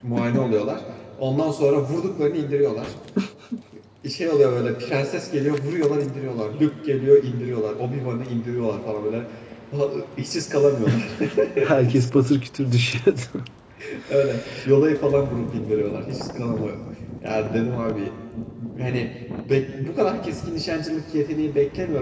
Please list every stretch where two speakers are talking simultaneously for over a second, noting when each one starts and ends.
none

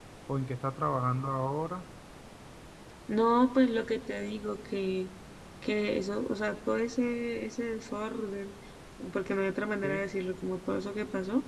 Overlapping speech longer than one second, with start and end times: none

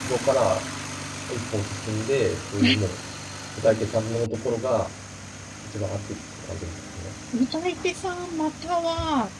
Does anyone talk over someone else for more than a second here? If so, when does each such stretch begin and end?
none

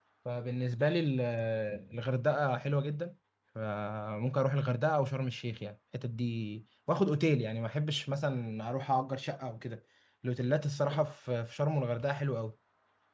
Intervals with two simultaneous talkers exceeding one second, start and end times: none

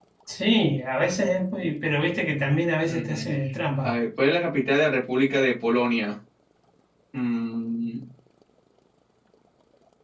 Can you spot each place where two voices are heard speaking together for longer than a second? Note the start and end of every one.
none

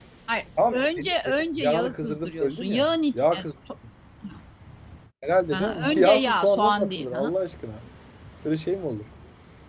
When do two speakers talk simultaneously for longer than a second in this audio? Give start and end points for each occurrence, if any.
1.6-3.5, 5.5-7.3

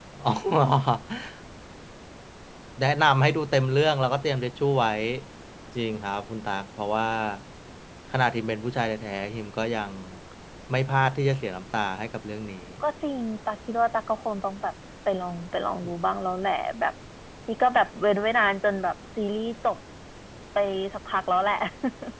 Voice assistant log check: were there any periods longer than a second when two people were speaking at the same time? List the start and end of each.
none

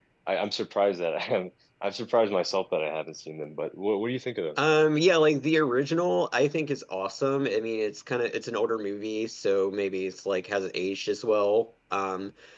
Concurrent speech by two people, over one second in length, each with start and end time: none

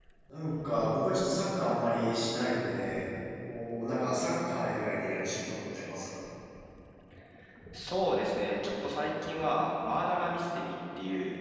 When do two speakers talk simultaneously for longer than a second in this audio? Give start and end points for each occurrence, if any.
none

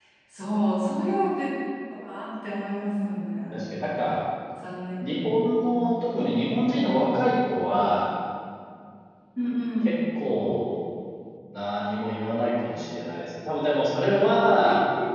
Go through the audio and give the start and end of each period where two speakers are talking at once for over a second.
none

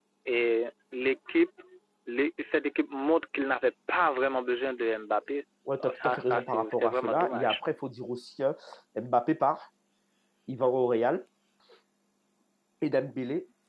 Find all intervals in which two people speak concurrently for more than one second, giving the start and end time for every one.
5.8-7.6

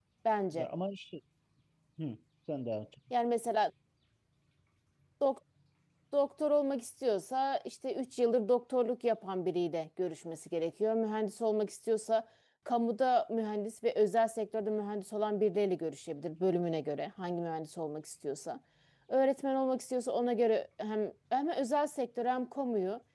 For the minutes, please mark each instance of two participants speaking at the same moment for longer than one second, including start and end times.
none

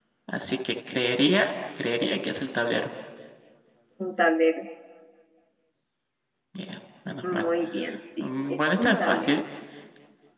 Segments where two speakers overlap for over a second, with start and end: 8.2-9.4

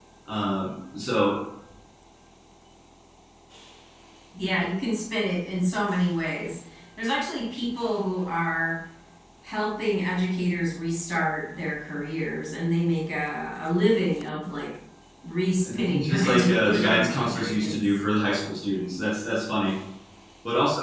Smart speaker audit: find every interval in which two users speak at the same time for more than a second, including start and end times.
15.7-18.0

